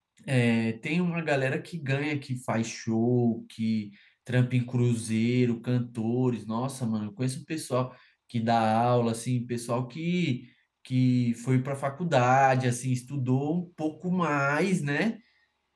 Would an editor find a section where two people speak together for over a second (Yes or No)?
No